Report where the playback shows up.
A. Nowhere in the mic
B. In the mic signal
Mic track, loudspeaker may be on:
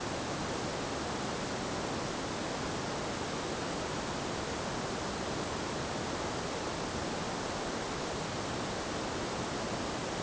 A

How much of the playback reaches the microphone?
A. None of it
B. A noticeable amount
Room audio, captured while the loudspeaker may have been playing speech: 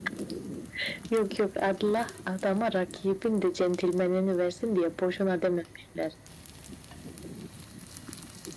B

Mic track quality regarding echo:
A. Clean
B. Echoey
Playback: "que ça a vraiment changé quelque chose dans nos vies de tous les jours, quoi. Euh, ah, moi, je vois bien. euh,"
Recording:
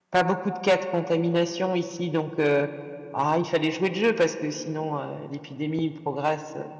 A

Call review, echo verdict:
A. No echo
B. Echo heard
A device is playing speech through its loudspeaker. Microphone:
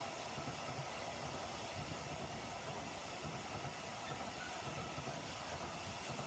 A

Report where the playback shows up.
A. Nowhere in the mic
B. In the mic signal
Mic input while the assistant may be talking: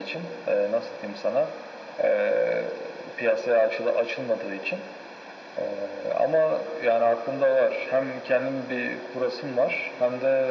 B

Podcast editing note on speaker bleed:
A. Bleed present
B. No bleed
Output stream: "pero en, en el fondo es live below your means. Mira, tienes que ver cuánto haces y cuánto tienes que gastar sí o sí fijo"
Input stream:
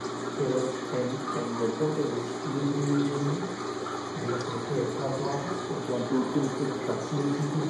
A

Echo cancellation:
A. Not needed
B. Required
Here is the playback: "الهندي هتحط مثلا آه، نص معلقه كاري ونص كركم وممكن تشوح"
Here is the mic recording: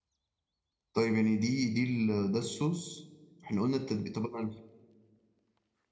A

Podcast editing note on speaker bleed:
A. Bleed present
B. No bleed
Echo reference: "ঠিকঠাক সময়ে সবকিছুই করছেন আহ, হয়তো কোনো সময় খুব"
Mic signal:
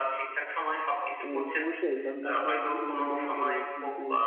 A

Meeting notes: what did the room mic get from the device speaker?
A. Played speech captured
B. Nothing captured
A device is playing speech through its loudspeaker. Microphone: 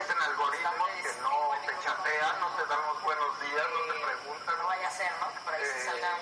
A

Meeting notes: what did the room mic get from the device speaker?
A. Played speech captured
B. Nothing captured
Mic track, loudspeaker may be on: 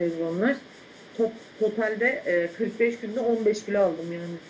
A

